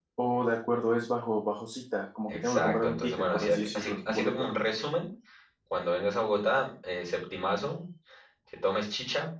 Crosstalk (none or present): present